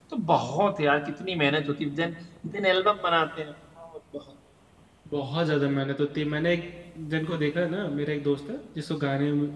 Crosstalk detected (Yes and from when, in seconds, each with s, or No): No